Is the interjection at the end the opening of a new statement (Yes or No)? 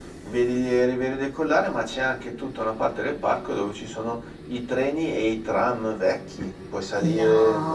Yes